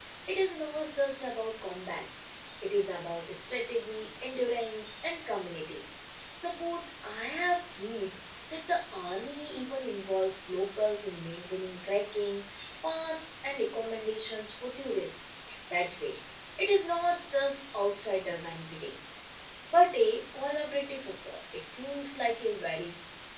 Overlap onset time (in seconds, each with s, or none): none